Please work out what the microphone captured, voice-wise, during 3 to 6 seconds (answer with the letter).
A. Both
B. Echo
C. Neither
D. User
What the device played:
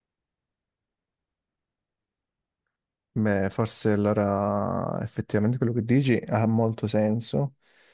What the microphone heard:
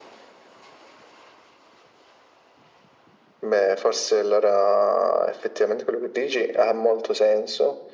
B